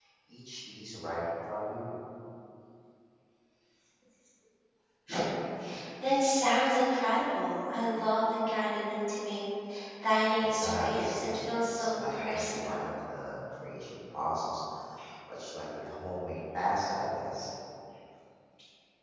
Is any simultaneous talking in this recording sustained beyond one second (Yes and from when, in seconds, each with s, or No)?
Yes, from 10.4 s